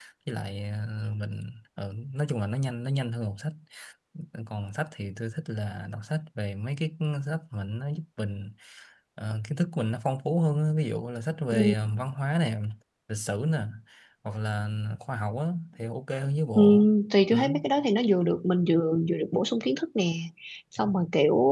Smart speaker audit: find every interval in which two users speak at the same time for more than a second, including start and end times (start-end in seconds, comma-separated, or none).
none